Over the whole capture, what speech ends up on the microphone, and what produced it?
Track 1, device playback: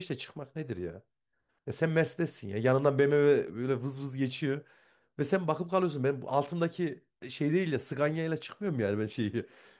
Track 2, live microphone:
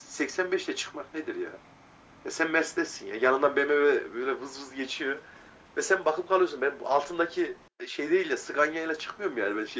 echo only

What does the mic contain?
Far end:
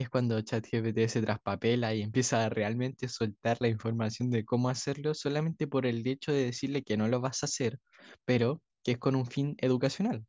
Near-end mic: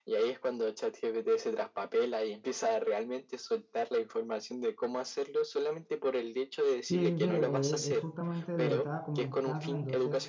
both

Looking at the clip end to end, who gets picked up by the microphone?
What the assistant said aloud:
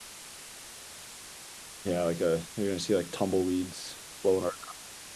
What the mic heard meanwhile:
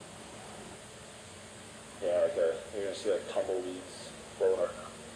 echo only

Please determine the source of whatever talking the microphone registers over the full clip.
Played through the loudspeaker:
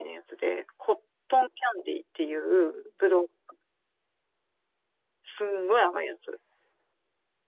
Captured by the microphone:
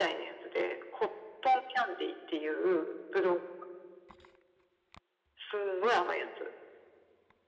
echo only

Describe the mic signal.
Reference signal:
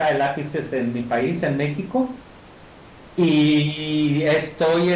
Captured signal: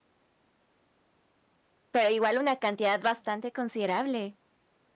user only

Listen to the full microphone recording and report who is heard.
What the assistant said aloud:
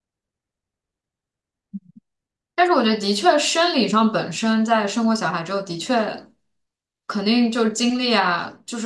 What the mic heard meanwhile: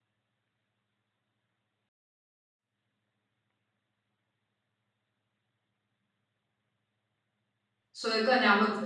user only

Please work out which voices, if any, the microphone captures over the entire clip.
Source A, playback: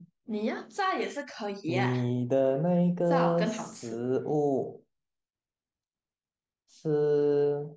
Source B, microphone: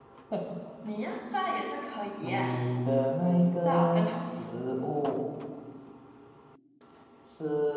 echo only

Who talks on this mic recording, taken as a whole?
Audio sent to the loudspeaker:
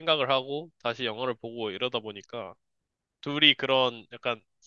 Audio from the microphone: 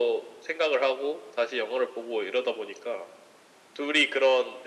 echo only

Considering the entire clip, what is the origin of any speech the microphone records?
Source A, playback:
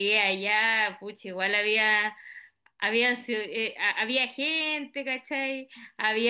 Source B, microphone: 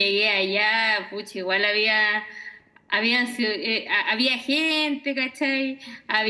echo only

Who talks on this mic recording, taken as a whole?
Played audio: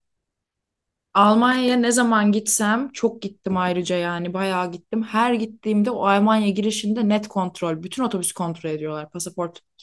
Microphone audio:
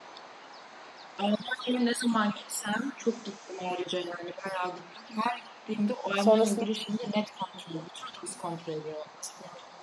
both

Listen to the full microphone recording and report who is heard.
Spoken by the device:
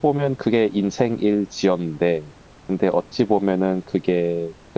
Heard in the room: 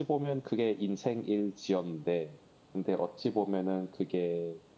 echo only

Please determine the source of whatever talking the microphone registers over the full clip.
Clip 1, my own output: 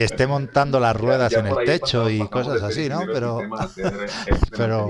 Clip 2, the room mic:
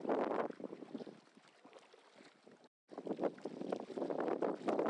neither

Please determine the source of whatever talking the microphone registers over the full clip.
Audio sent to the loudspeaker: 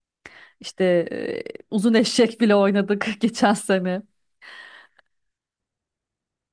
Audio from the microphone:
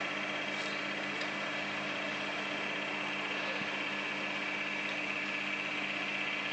neither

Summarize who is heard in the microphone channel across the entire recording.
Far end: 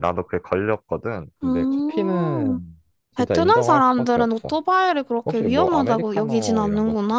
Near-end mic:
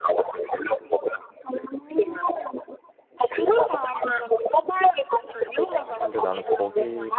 both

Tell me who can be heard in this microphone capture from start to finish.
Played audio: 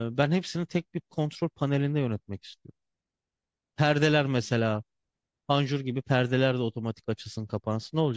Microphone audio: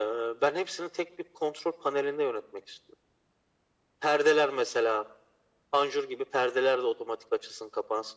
echo only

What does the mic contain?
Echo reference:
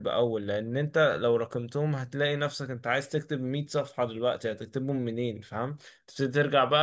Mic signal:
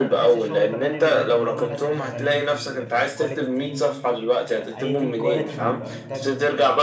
both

